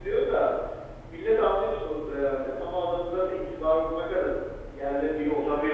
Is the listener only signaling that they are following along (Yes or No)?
No